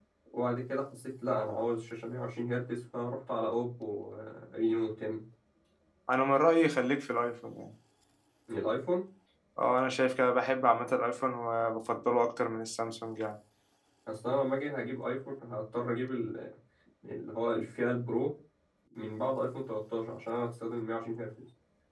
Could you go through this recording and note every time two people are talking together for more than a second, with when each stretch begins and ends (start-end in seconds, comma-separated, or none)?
none